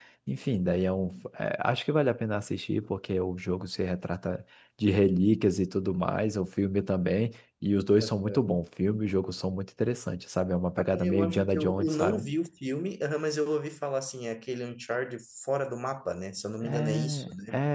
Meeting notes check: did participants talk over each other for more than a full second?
Yes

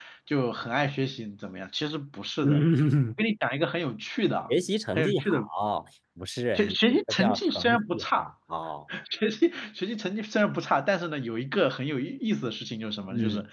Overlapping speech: Yes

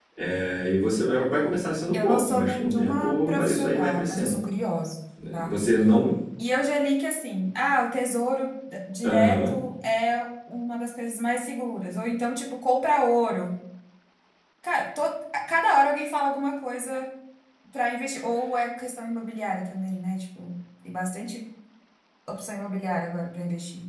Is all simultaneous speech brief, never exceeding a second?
No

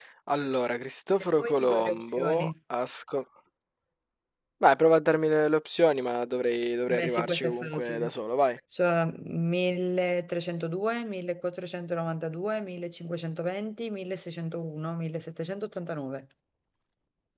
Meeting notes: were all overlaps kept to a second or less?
No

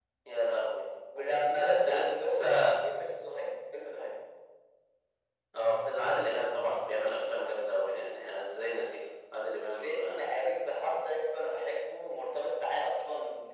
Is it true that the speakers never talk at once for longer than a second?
No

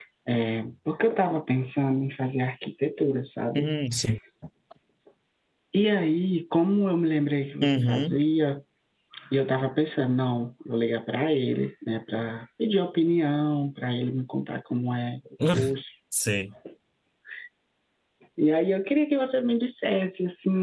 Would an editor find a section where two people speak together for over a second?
No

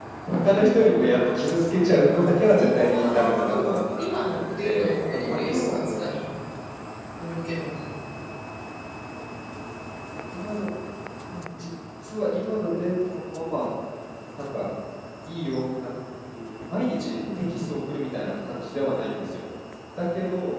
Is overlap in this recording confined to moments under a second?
No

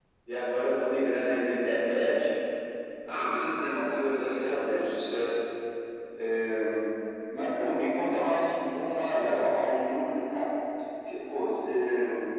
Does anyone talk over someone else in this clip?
Yes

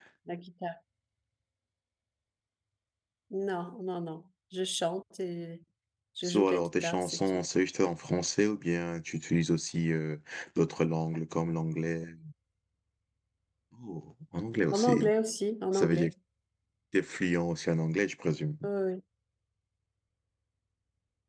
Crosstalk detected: Yes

